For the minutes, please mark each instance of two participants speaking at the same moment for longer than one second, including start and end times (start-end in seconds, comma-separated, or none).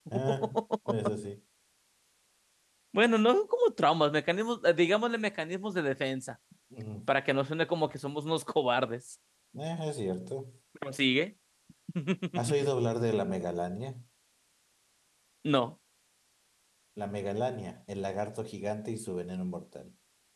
none